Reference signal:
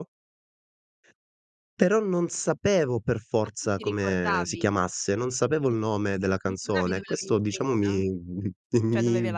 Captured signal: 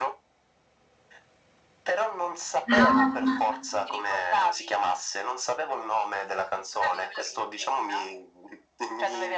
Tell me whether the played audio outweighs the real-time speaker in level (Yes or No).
No